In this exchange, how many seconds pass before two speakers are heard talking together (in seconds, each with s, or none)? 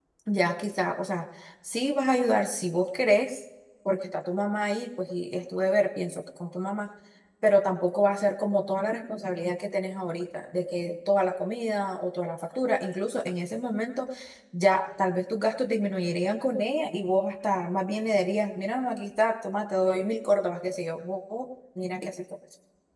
none